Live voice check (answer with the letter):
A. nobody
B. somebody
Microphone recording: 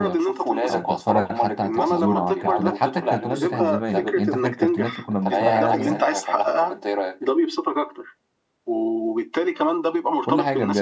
B